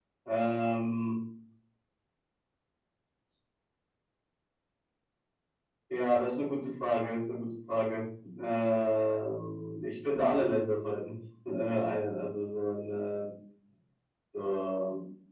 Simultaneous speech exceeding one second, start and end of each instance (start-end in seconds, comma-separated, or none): none